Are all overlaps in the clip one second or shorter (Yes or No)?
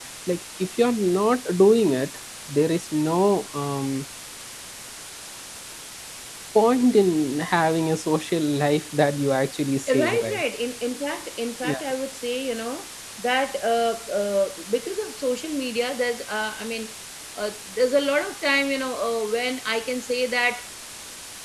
Yes